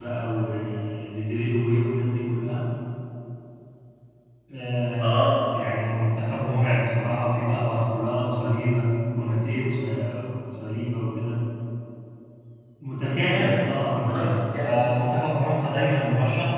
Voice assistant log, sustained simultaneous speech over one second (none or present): present